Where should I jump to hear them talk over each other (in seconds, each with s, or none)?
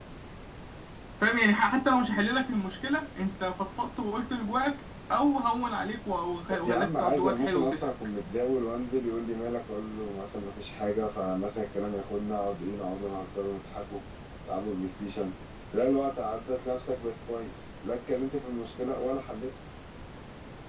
6.6 s